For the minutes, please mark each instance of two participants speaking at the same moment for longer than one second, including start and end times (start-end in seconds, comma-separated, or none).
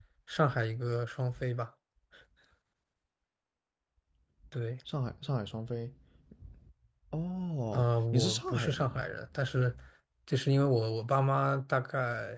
7.7-9.1